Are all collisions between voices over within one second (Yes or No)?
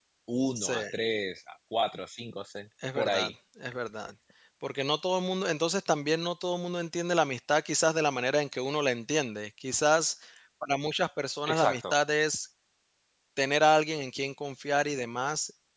Yes